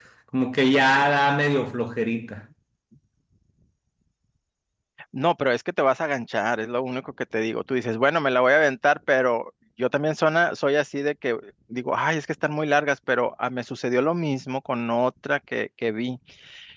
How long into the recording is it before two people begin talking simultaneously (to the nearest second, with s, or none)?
none